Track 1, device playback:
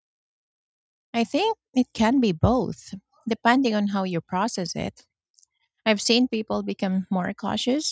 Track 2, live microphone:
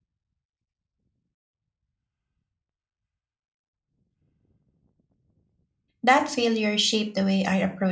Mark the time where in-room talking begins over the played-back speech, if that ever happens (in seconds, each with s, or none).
6.0 s